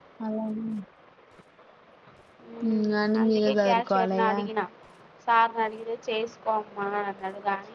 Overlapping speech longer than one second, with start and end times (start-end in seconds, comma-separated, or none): 2.7-4.4